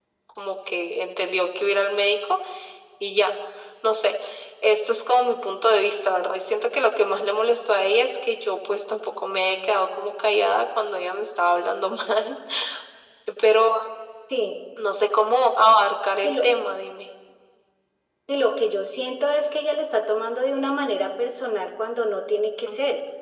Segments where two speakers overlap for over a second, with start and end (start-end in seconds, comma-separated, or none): none